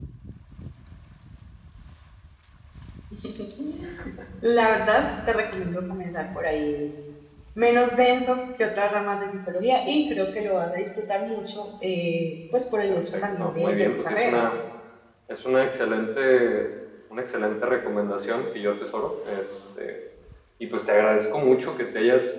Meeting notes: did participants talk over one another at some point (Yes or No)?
Yes